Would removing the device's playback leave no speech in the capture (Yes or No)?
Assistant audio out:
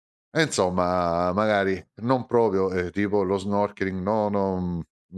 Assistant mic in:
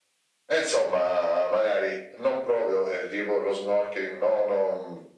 Yes